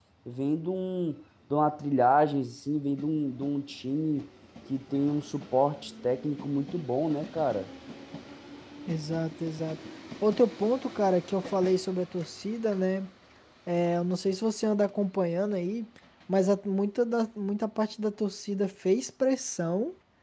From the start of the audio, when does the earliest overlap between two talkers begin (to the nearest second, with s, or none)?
none